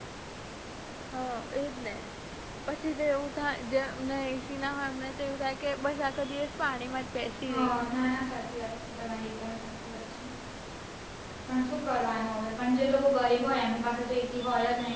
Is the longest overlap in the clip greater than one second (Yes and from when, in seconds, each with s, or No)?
No